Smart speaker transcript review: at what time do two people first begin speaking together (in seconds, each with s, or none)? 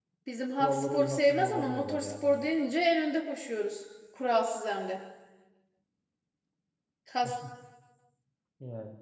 0.6 s